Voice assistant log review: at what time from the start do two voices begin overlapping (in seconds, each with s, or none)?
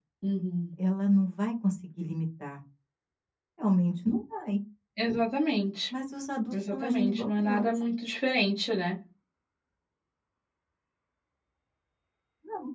6.5 s